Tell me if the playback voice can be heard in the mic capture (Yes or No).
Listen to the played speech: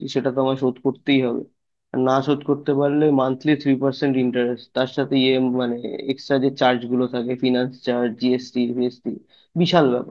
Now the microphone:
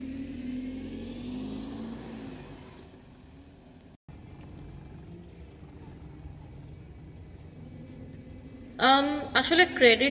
No